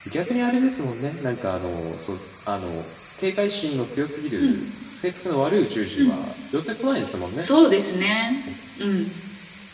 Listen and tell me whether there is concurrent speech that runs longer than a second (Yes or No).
No